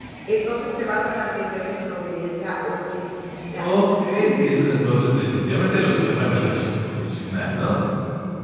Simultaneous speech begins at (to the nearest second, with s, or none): none